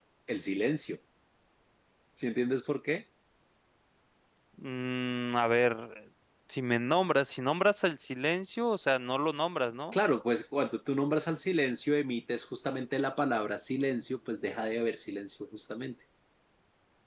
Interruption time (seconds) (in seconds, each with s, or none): none